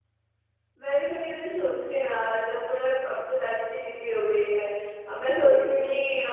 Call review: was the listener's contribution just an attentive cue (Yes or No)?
Yes